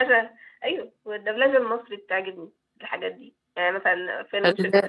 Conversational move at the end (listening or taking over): listening